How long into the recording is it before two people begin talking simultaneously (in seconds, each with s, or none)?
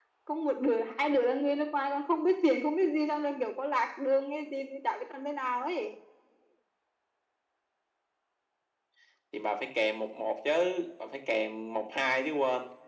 none